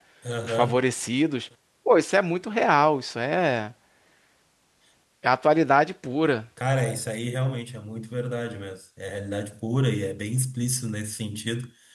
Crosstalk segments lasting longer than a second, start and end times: none

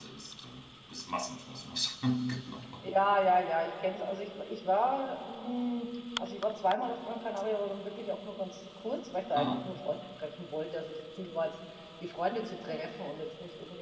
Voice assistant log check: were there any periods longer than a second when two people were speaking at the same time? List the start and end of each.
none

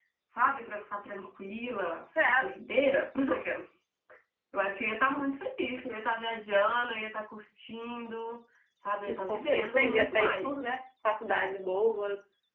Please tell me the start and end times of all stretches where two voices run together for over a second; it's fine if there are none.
9.0-10.5

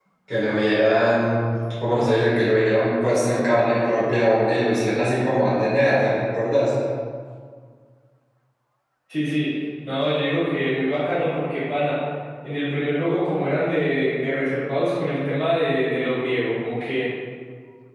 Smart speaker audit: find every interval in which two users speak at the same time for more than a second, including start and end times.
none

